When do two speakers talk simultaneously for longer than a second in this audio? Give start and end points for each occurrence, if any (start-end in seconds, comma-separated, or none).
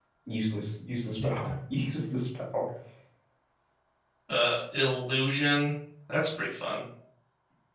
none